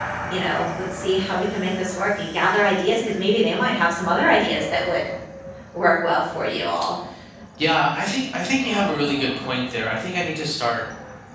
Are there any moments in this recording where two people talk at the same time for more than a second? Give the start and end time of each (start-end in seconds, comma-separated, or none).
none